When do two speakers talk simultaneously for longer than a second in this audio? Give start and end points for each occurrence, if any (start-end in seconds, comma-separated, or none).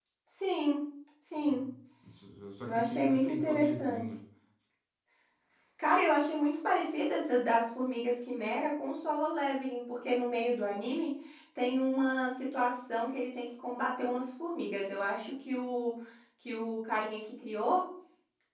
2.7-4.0